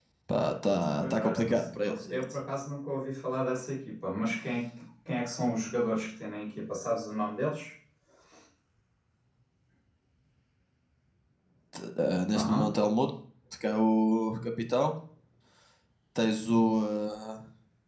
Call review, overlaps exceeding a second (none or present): present